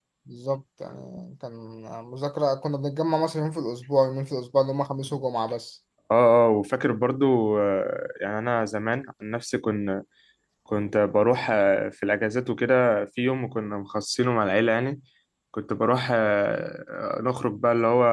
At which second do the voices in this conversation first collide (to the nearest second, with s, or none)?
none